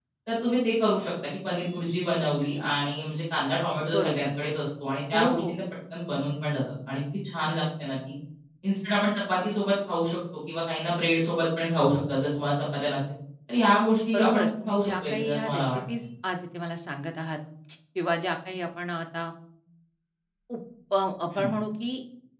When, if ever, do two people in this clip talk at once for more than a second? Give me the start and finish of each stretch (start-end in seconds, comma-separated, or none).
14.1-16.0